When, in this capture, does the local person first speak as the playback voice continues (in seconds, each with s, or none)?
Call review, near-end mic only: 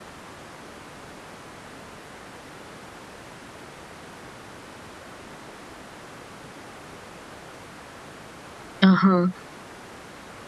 8.8 s